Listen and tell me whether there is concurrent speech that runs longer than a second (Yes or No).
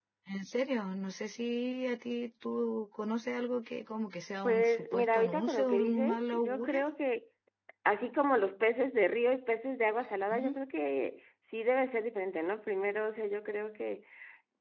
Yes